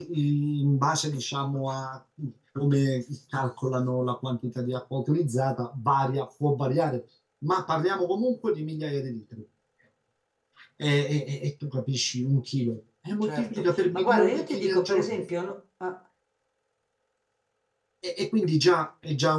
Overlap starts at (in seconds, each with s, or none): 13.2 s